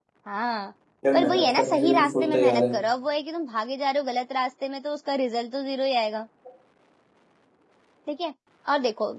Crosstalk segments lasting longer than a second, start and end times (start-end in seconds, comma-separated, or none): 1.1-2.8